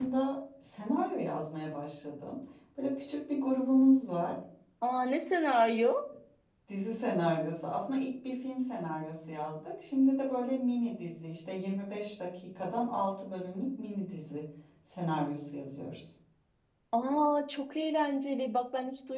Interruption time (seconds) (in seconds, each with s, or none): none